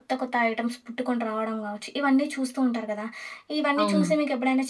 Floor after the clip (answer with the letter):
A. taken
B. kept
B